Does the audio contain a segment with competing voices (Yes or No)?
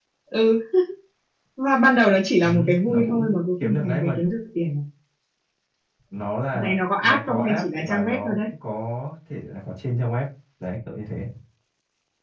Yes